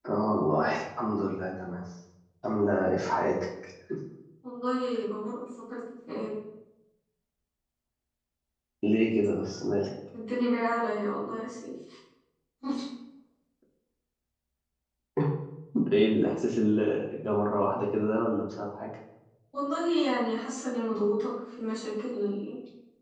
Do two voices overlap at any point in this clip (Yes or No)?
No